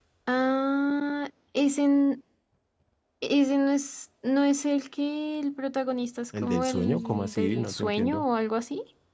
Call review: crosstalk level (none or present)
present